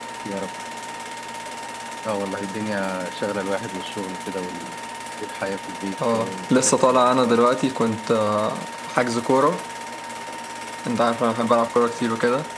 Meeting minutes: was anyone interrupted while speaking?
Yes, from 6.1 s

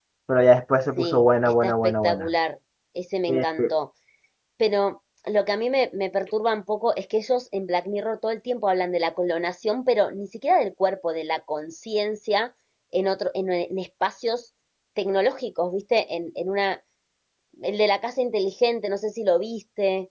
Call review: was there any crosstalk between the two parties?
Yes, from 1.0 s

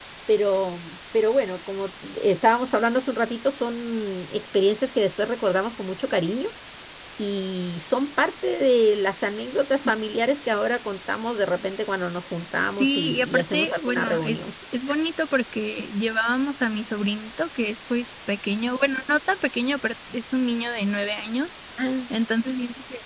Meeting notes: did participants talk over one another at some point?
Yes, from 12.8 s

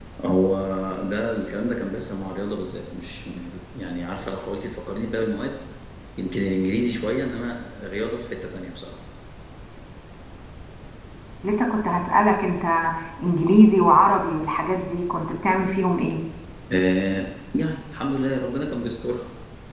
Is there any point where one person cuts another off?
No

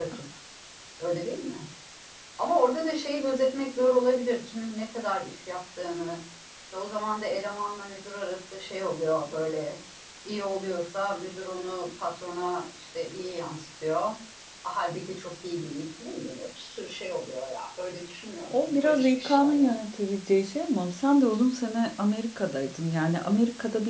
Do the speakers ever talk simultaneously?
Yes, from 18.4 s

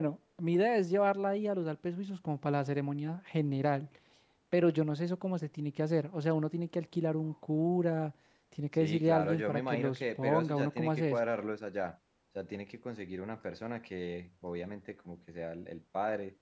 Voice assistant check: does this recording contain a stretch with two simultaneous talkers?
Yes, from 8.8 s

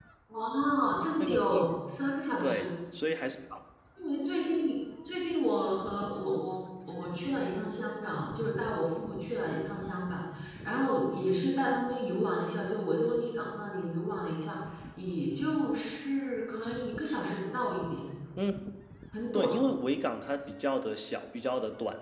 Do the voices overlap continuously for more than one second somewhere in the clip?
No

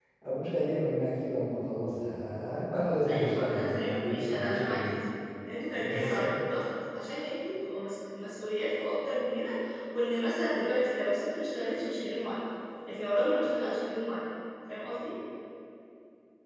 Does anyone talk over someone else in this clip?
Yes, from 3.0 s

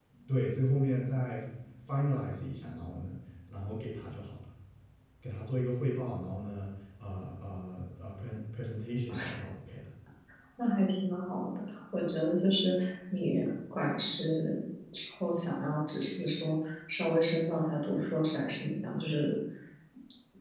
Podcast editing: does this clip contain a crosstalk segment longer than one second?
No

